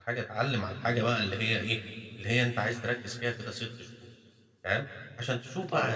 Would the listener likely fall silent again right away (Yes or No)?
Yes